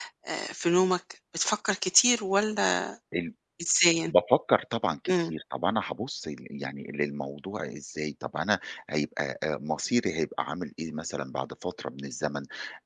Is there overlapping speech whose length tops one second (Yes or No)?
No